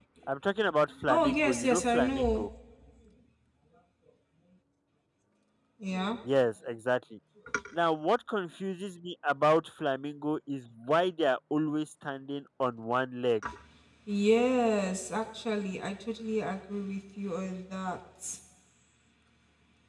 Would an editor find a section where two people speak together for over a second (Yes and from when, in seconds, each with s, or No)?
Yes, from 1.1 s